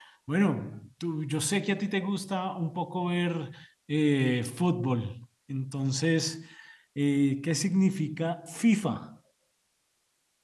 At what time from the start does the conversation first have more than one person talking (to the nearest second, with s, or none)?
none